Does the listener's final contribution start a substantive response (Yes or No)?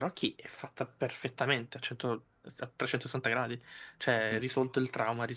No